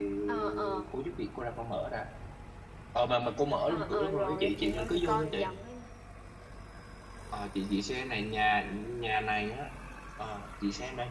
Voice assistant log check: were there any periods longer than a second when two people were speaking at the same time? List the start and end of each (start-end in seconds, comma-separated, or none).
3.7-5.4